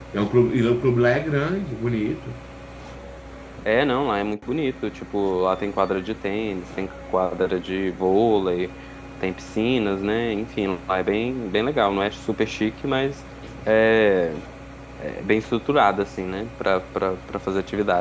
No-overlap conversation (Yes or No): Yes